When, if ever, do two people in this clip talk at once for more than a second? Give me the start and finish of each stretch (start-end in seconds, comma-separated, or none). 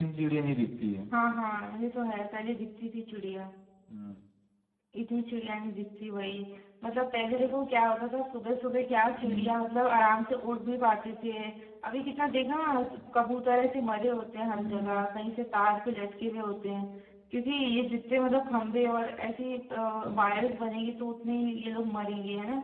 none